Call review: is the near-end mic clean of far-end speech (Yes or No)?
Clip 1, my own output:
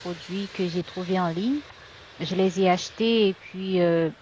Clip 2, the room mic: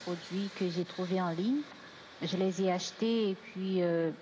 No